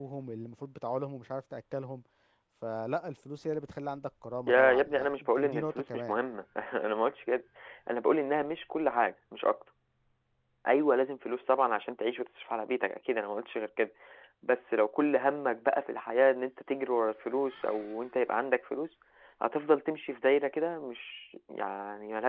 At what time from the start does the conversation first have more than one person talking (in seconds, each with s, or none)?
4.5 s